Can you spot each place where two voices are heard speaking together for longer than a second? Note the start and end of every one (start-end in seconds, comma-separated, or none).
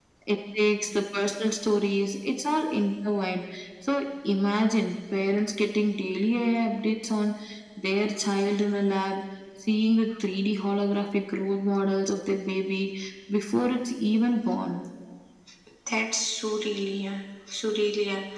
none